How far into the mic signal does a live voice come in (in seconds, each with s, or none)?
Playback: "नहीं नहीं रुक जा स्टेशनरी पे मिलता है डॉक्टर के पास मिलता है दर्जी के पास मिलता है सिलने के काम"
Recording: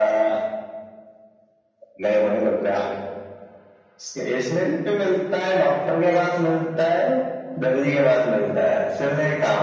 none